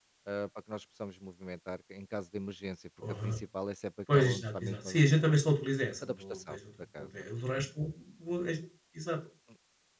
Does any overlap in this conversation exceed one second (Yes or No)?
Yes